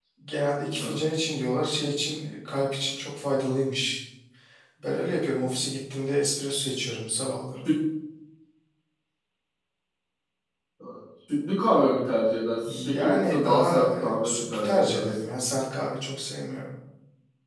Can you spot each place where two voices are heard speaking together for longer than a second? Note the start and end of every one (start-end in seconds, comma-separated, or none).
12.6-15.1